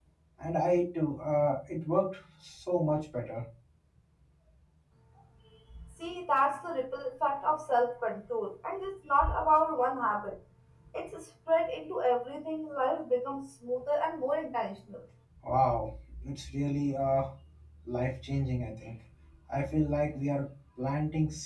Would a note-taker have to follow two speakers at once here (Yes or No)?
No